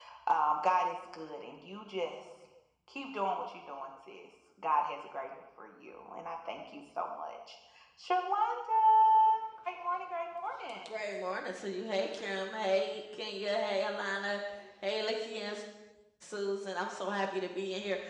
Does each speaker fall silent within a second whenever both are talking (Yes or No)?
Yes